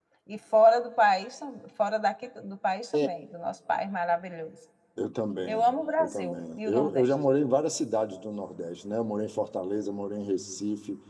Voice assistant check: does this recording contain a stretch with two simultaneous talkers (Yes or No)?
Yes